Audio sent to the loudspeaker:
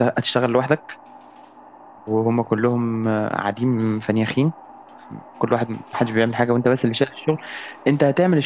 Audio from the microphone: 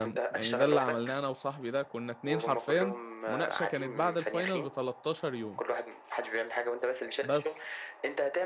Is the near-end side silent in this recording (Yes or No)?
No